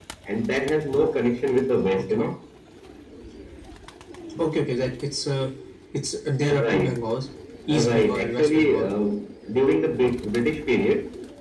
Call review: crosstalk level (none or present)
present